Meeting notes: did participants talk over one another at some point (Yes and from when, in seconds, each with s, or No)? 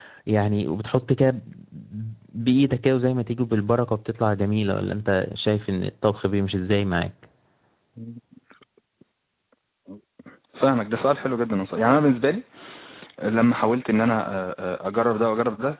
No